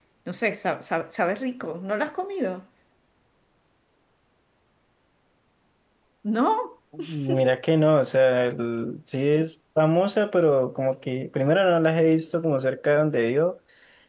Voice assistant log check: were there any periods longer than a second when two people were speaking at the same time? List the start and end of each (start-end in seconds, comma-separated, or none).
none